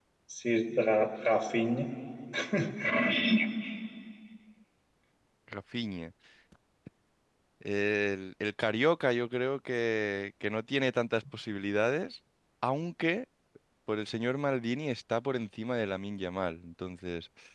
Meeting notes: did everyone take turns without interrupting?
Yes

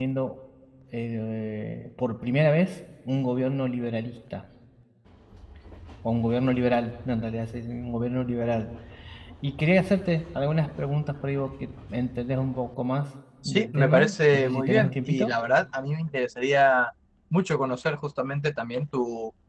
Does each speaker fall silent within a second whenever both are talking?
No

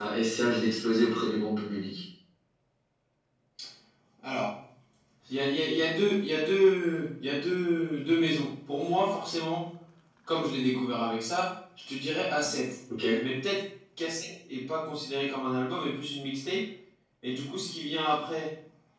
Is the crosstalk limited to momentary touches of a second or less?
Yes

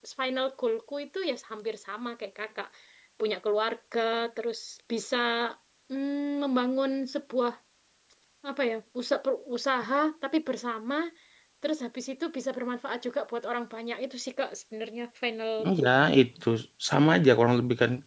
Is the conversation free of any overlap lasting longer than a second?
Yes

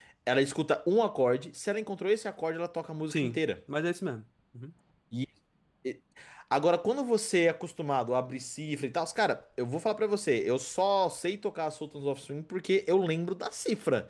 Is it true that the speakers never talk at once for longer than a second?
Yes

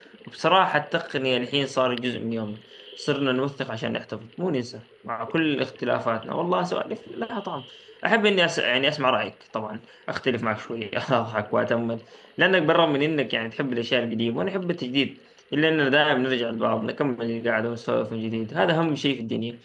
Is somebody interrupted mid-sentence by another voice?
No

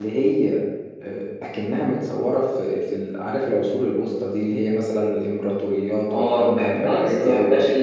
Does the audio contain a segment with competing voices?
Yes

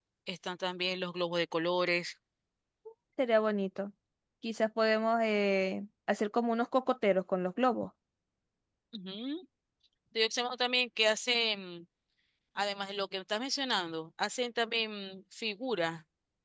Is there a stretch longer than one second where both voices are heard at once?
No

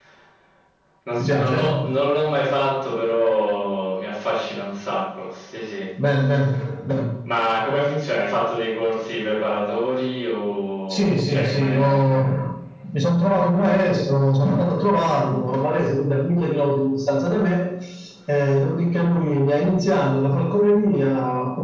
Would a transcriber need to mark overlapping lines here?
Yes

